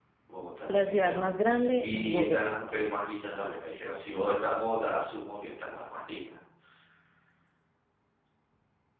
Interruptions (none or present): present